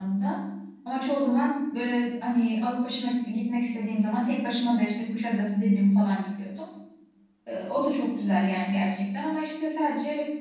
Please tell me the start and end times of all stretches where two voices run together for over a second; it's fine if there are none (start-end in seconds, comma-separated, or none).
none